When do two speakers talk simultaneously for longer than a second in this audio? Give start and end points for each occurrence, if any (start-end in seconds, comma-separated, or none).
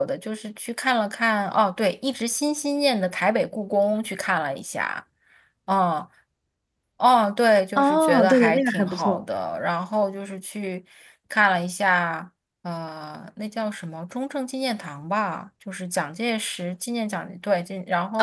7.8-9.2